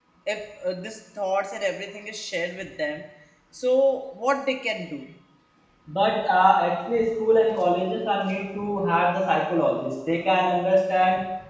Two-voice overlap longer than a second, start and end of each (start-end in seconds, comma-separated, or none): none